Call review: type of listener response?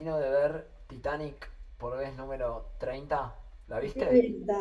taking over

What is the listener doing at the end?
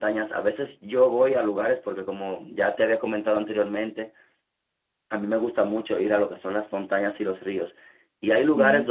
listening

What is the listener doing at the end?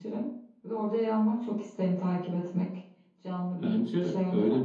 taking over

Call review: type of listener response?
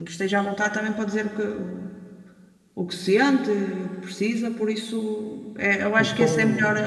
listening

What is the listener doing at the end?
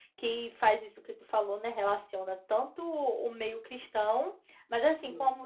listening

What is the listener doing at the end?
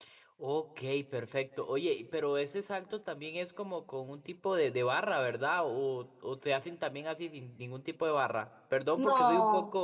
listening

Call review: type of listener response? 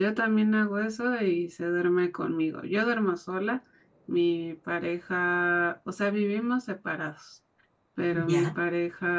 listening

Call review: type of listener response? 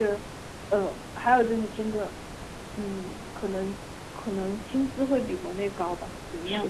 taking over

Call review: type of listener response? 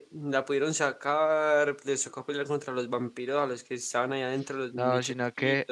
taking over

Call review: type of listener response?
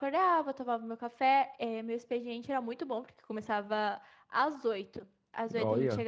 listening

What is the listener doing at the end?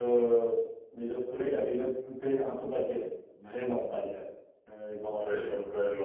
taking over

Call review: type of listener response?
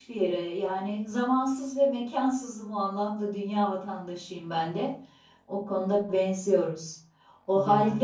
listening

